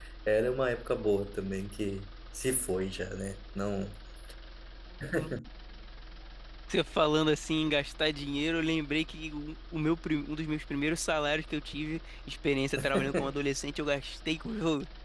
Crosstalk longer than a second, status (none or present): none